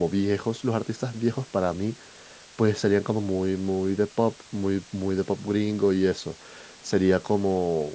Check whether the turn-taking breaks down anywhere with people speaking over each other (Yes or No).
No